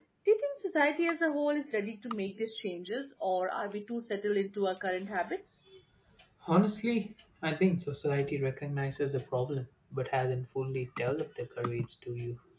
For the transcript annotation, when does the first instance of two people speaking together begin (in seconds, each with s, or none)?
none